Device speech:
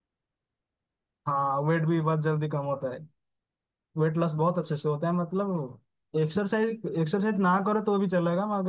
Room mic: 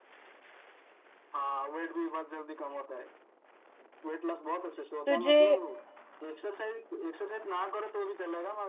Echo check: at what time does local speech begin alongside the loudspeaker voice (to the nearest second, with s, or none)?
5 s